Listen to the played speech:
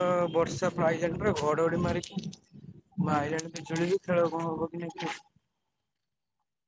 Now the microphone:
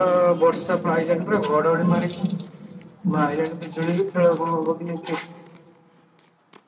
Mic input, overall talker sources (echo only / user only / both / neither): echo only